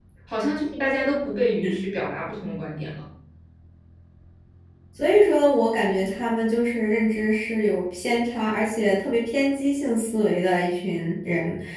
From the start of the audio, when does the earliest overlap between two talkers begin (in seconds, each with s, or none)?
none